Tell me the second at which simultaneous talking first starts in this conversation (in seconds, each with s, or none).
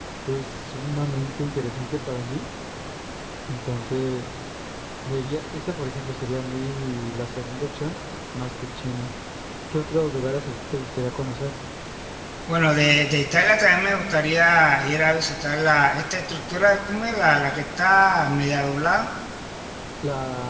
none